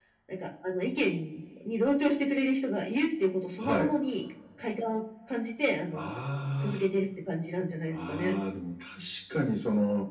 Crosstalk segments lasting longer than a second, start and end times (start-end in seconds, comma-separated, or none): none